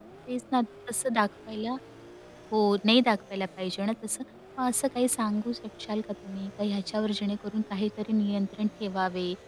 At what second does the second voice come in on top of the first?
none

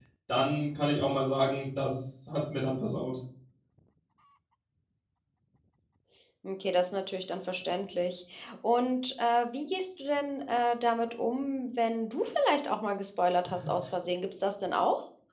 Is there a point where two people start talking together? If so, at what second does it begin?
none

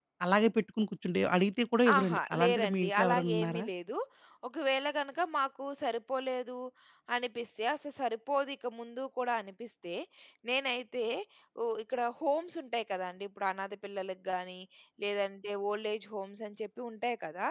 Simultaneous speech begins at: 1.9 s

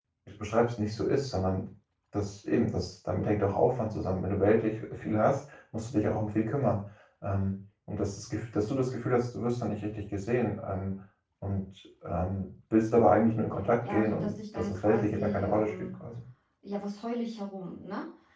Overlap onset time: 13.8 s

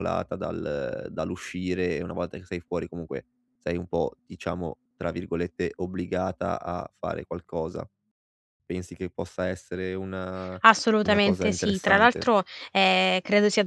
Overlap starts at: 11.0 s

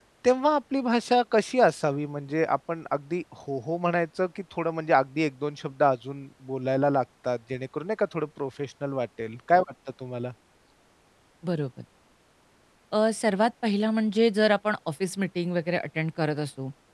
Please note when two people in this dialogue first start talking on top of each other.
none

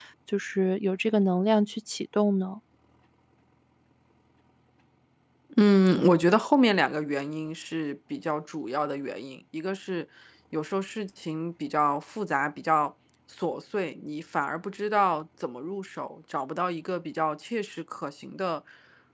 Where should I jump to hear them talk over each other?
none

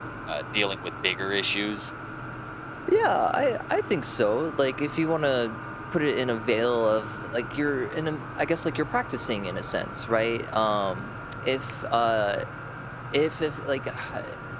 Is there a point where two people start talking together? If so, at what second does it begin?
none

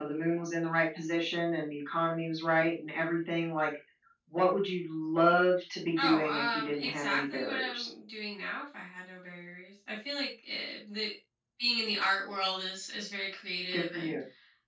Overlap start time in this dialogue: 6.0 s

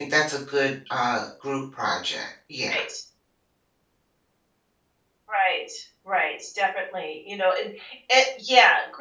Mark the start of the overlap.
none

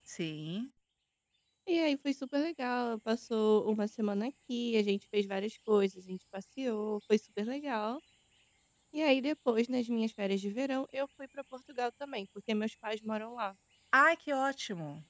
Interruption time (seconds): none

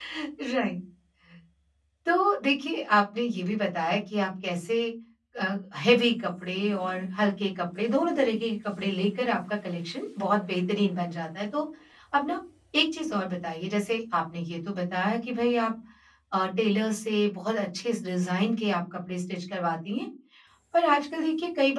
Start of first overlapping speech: none

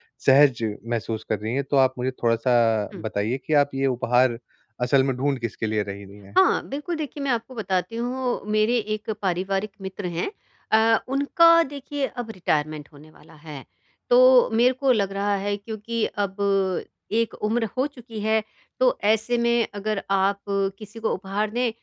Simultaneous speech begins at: none

